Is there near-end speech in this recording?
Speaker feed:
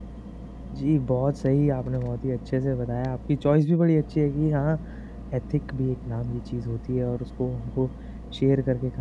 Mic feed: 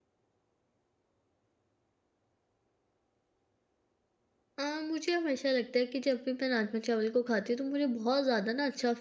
Yes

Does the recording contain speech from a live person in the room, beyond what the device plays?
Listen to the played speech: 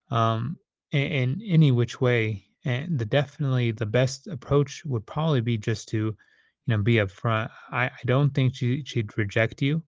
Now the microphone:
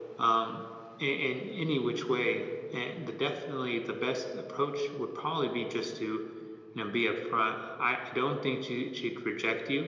No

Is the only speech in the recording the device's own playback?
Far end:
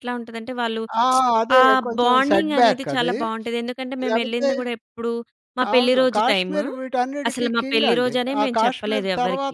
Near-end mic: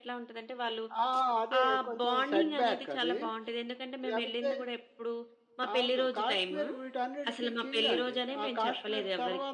Yes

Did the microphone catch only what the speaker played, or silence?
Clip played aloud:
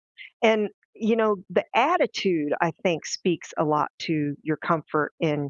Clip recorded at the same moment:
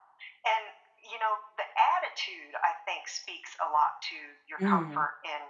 No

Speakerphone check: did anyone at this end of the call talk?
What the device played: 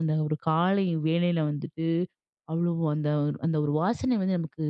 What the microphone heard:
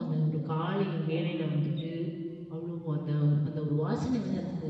No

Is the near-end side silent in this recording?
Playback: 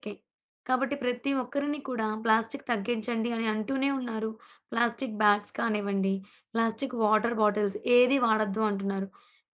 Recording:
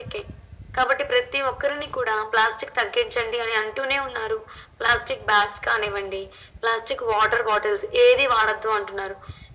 Yes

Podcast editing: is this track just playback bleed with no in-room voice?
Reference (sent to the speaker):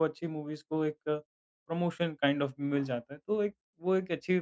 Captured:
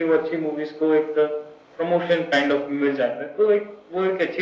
Yes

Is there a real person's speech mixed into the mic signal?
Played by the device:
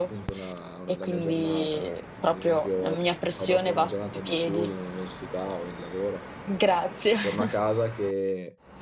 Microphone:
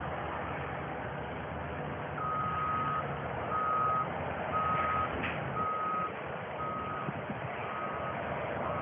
No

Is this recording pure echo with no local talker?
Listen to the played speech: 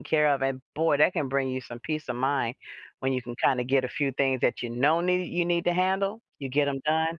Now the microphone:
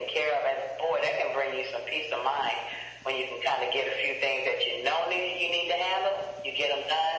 Yes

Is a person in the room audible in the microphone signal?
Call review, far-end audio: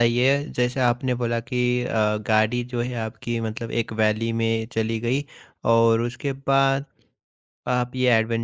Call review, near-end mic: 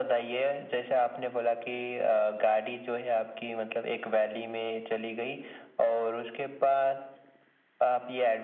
No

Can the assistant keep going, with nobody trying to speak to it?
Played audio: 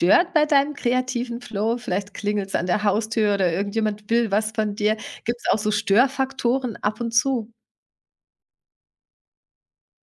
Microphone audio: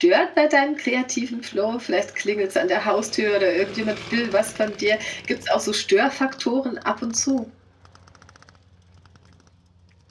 Yes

